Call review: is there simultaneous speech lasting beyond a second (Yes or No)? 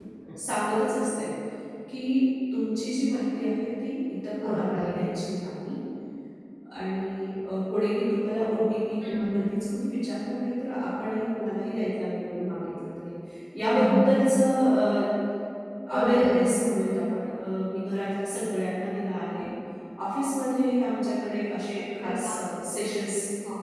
No